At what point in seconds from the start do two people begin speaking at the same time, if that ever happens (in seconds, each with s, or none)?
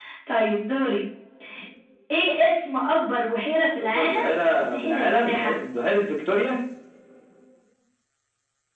3.8 s